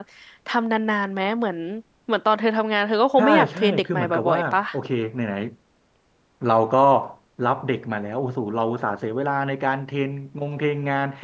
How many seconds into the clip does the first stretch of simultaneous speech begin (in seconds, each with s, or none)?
3.2 s